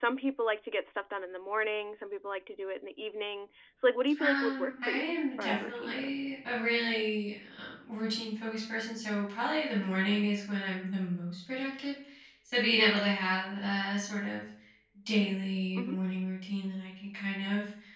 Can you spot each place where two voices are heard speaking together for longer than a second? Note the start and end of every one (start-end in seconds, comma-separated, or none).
4.2-6.2